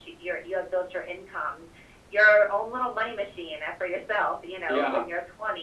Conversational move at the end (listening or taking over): listening